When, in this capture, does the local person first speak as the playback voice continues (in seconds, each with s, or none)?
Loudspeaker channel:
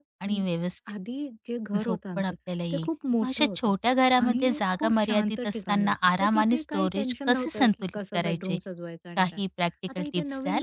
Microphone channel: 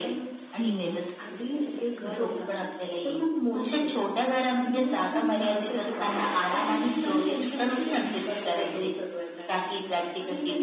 0.6 s